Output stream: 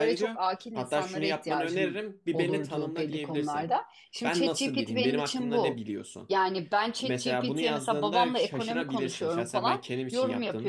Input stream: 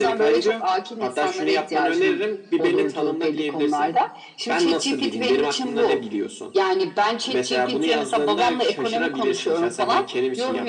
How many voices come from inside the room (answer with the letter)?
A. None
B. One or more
A